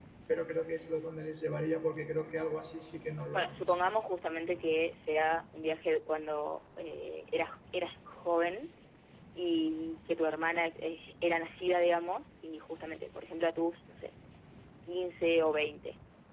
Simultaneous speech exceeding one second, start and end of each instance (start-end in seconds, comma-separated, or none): none